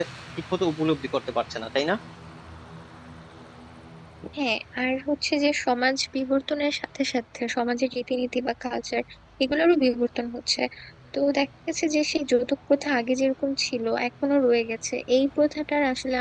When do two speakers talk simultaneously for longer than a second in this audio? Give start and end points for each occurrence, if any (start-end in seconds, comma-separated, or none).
none